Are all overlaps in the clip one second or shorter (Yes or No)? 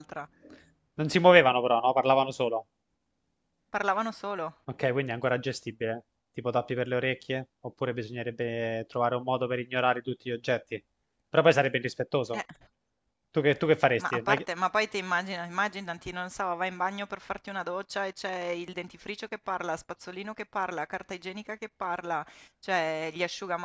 Yes